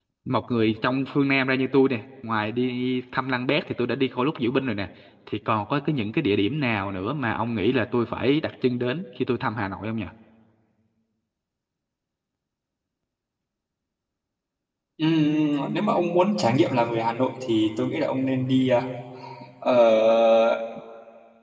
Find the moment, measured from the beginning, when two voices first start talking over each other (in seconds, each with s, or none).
none